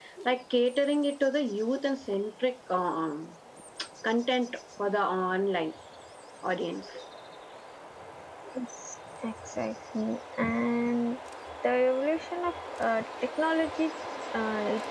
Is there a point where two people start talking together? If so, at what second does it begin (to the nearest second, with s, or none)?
none